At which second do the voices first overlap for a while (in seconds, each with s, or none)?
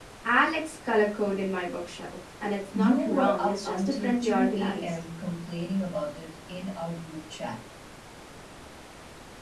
2.7 s